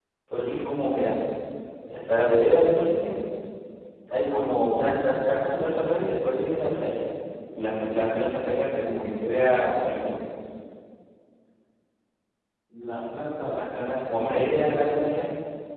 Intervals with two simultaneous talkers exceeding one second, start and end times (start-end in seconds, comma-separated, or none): 13.5-15.2